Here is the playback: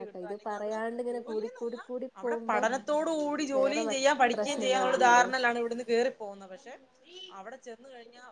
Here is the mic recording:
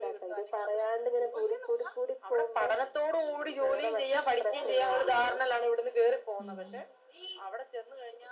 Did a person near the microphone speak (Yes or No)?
Yes